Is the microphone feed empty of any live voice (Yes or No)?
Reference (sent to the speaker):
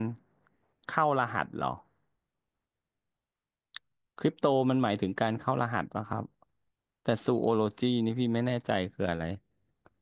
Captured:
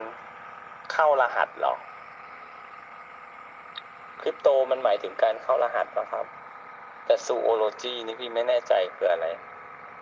Yes